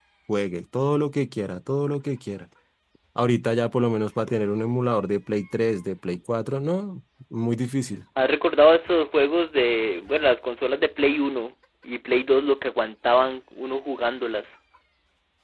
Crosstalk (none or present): none